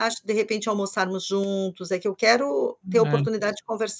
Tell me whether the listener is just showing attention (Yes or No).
Yes